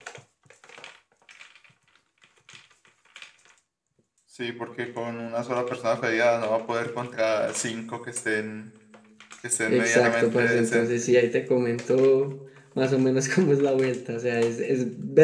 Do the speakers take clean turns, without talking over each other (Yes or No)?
No